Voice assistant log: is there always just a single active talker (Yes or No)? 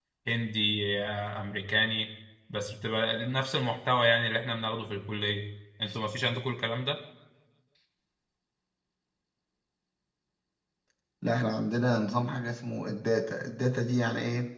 Yes